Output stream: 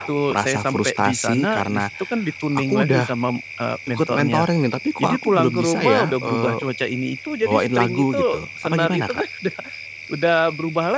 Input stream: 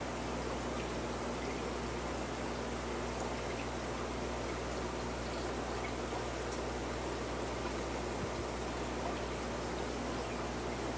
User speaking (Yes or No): No